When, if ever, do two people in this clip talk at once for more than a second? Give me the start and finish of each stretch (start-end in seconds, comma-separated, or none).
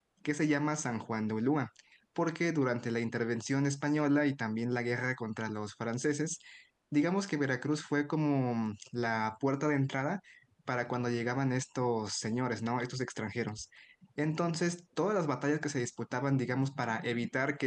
none